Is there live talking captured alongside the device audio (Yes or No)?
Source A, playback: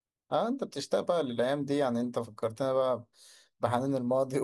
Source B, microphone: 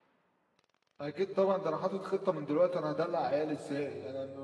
Yes